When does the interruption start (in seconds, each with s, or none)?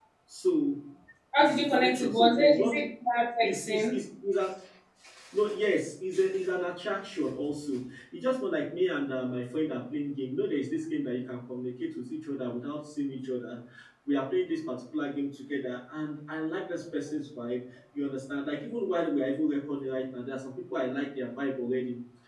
1.4 s